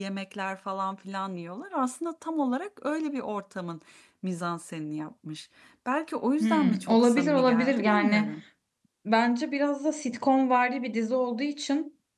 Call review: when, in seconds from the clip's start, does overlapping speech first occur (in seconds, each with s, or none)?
6.4 s